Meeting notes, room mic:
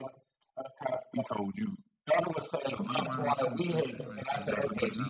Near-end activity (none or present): present